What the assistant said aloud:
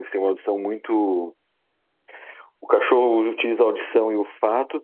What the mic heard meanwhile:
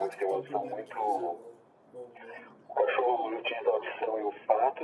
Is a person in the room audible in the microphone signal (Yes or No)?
Yes